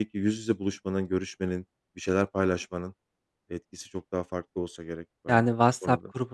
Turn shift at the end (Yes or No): Yes